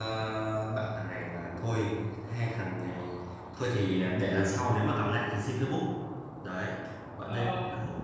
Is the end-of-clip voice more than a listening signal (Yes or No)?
No